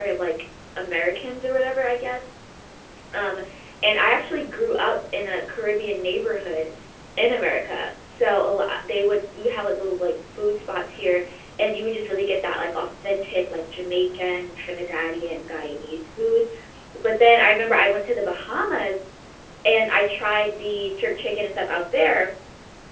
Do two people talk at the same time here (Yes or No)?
No